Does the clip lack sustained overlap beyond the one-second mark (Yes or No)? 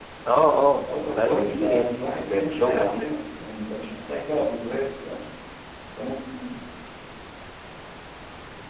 No